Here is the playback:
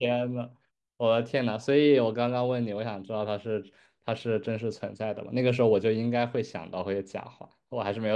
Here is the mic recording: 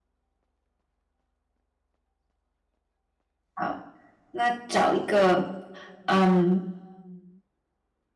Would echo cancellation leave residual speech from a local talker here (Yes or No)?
Yes